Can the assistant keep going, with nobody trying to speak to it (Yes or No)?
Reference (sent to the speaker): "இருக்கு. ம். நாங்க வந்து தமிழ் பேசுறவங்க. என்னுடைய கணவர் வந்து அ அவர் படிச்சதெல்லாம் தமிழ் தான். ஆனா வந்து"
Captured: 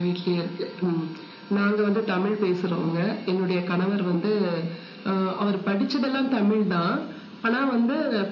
Yes